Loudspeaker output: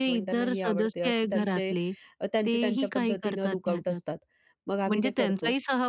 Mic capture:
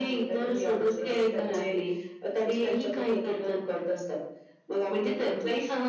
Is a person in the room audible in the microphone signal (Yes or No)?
No